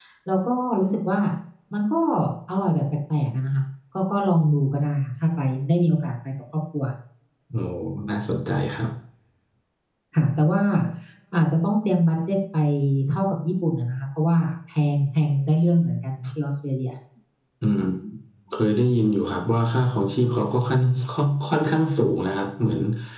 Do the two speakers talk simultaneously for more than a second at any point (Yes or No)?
No